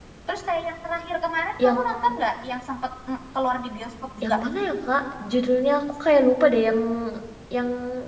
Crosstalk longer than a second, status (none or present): none